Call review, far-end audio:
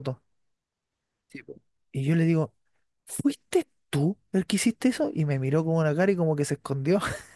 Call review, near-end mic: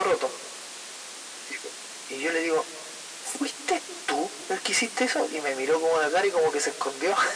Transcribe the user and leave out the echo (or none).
none